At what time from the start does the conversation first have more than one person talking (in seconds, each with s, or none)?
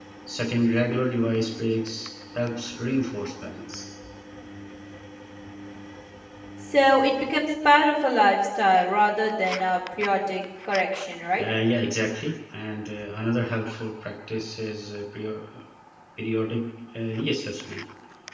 none